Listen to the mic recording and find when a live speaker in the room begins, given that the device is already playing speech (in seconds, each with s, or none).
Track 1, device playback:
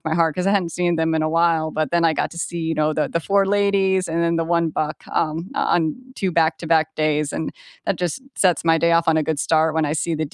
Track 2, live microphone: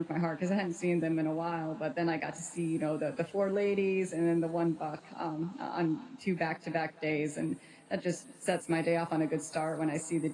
none